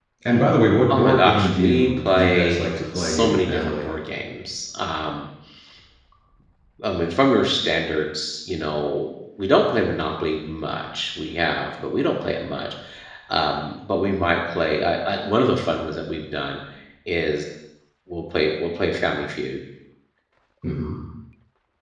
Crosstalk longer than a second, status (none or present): present